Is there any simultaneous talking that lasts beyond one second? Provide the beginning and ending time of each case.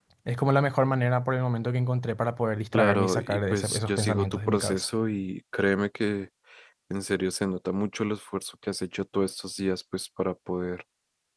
2.7-4.8

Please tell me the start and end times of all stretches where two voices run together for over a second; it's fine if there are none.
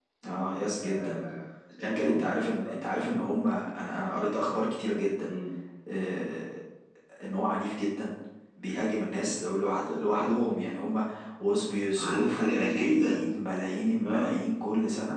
12.0-13.2

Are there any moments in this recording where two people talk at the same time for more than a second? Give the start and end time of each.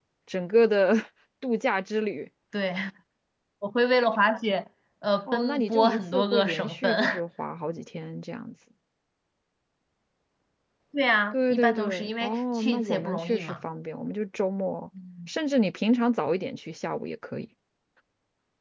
5.3-7.2, 11.3-13.6

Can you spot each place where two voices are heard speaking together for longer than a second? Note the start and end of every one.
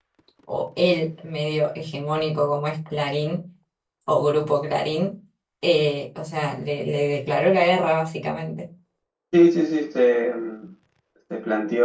none

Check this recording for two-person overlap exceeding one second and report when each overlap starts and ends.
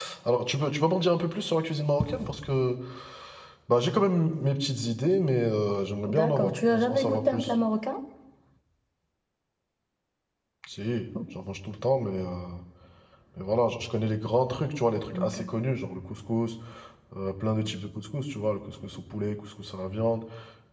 6.1-7.6

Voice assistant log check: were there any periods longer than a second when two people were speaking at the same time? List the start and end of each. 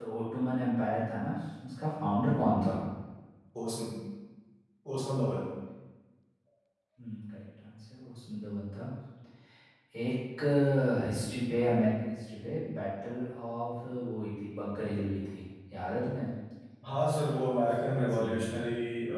17.3-18.6

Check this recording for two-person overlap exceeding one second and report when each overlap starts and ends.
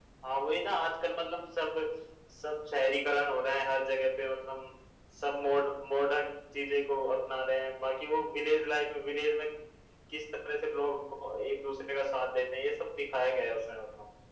none

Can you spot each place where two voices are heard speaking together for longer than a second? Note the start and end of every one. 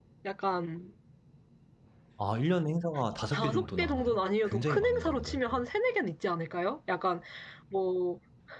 3.2-5.4

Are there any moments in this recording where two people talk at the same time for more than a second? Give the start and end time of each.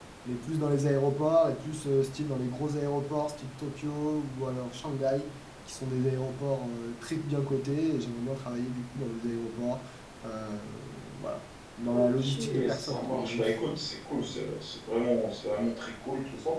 11.9-13.4

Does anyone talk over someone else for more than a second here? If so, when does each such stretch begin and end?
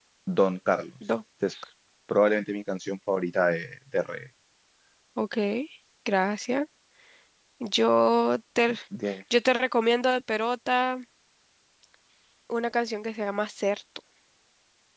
none

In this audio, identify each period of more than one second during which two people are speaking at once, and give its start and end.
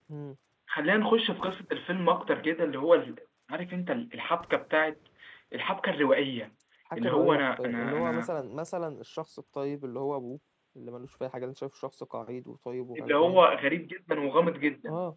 7.0-8.3

